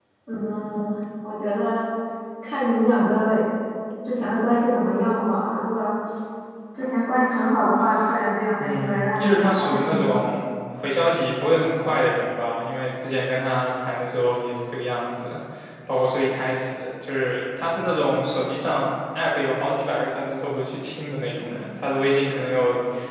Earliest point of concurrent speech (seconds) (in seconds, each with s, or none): 8.6 s